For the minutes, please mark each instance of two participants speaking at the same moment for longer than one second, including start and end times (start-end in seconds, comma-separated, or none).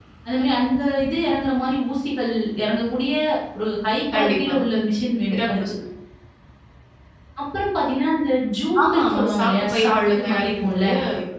8.8-10.8